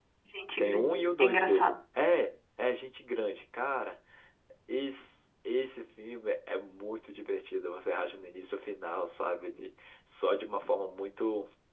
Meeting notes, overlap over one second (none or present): present